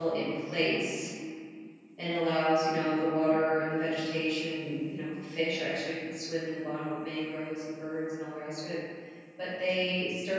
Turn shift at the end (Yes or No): No